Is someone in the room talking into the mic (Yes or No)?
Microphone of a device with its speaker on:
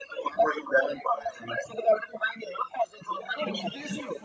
Yes